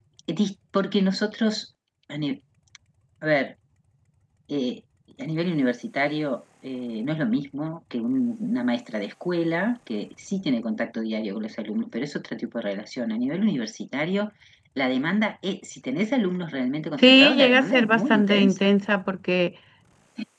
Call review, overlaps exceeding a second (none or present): present